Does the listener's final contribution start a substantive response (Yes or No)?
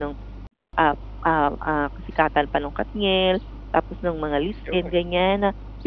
No